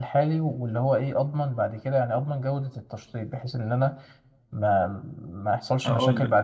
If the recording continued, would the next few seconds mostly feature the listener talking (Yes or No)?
No